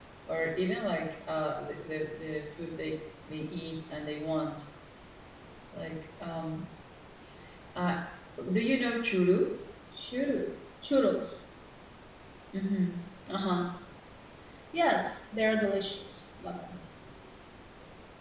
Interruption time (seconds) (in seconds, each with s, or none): none